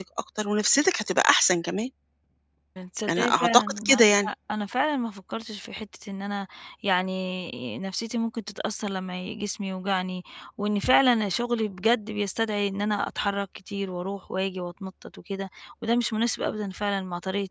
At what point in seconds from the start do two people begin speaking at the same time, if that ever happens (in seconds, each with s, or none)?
3.1 s